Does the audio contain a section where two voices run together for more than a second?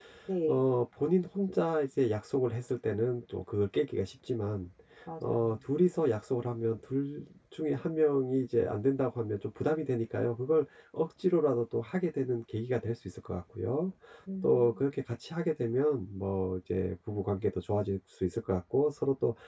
No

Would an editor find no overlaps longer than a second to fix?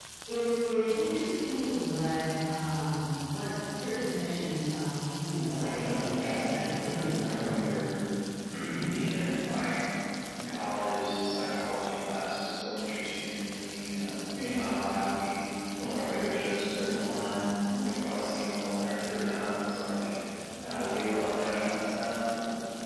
No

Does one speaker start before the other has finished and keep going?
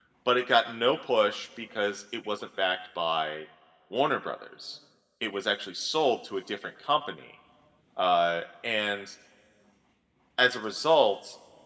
No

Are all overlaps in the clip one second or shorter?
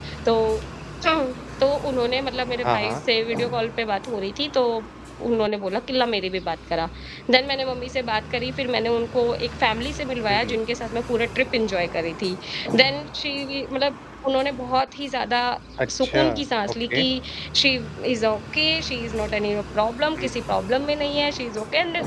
Yes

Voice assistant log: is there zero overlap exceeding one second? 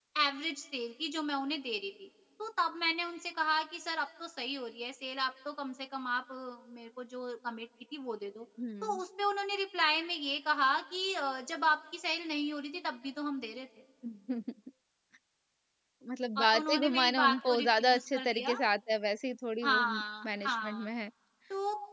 No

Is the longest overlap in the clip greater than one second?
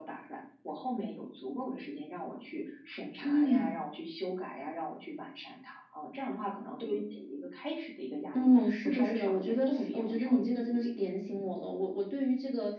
Yes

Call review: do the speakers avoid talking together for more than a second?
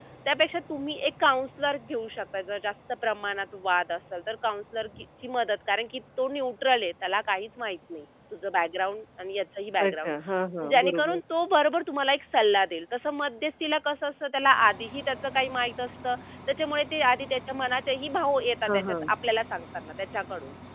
Yes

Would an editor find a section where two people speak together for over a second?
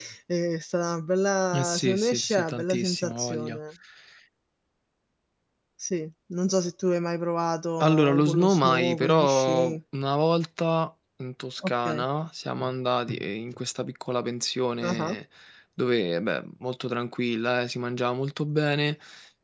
Yes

